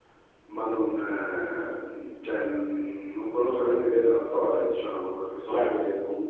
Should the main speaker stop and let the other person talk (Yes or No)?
Yes